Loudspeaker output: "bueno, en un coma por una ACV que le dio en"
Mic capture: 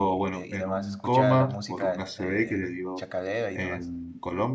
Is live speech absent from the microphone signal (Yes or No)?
No